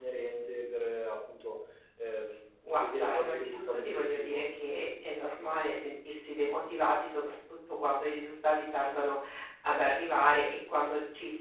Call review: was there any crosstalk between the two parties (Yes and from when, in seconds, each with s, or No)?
Yes, from 2.8 s